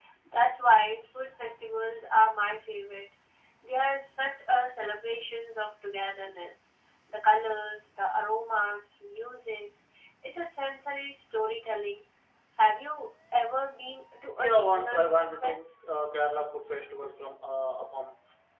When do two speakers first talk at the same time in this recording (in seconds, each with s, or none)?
14.4 s